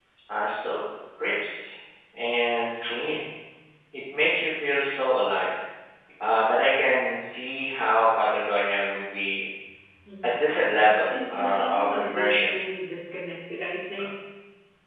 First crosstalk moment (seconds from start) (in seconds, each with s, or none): 11.3 s